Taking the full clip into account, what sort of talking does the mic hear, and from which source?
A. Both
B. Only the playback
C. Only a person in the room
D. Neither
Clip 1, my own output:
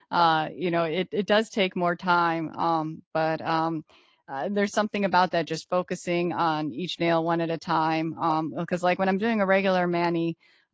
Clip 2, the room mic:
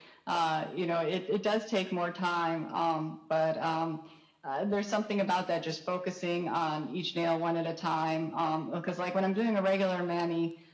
B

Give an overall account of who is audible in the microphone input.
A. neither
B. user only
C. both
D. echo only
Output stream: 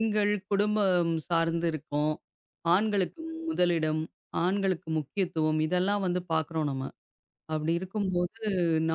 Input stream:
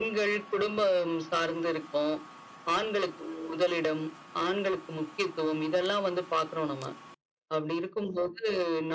D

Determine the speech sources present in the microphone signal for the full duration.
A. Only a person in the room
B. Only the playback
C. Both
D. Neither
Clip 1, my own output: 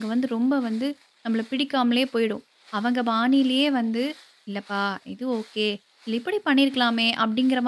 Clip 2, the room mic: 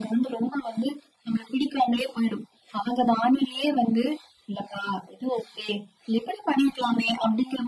B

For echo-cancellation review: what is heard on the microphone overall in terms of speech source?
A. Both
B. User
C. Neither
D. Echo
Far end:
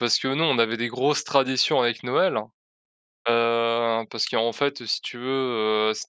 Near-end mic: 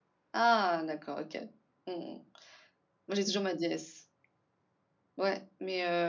B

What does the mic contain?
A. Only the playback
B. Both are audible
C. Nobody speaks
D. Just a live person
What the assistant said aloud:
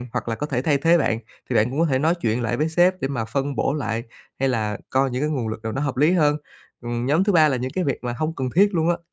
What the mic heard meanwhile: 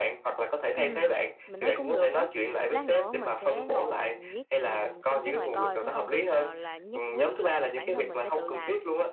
B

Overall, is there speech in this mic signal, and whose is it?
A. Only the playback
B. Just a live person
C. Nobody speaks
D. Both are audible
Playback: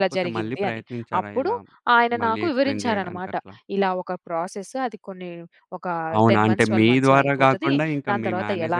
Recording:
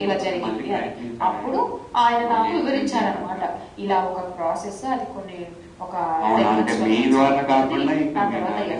A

